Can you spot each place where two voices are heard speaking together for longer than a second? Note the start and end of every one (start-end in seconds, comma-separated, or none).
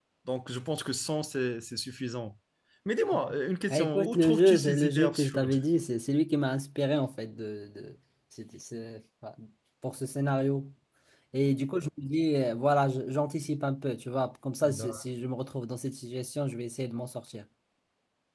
3.7-5.5